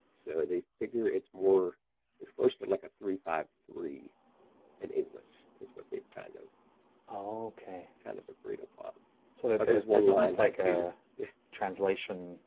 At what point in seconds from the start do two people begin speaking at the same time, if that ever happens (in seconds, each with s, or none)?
9.6 s